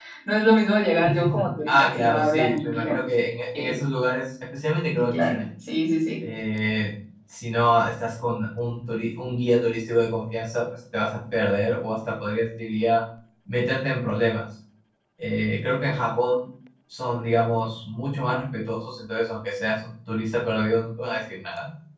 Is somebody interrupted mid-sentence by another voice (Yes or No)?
Yes